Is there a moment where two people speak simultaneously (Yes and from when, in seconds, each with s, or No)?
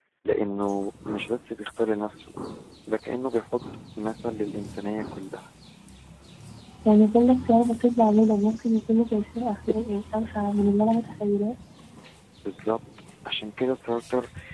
No